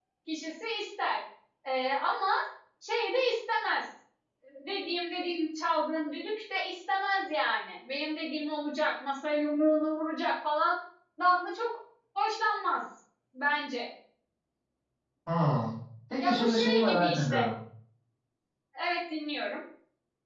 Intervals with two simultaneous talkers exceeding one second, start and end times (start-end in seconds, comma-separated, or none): 16.2-17.4